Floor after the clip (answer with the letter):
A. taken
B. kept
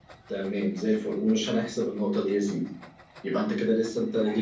B